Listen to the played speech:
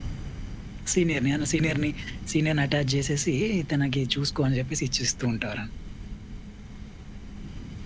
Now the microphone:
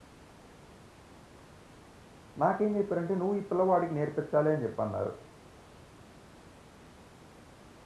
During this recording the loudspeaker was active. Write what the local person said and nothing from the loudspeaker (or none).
నాకేం జెప్పారంటే, "నువ్వు ఈ పిల్లవాడికి నేర్పించాలి" అని జెప్పన్నారు.